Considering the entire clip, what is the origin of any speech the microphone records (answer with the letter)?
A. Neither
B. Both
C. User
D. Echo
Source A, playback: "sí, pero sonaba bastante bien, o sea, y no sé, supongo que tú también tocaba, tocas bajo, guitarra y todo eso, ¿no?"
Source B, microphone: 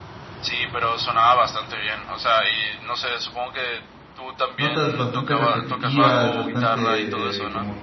B